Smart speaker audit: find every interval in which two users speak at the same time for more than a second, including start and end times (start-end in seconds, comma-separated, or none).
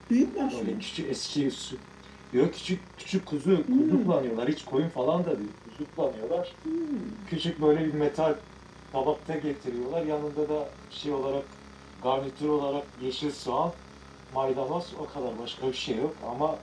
none